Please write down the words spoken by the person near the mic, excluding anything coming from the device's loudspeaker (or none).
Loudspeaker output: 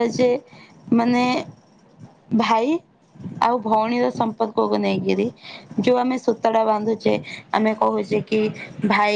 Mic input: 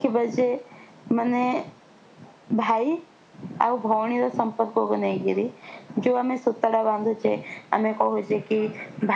none